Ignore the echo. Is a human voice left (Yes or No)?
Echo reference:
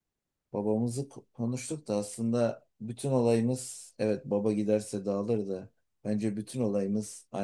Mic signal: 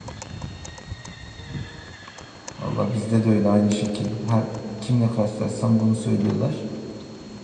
Yes